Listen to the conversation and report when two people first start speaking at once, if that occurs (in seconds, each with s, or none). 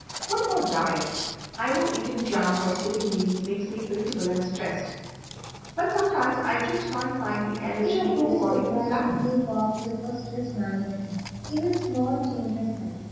7.8 s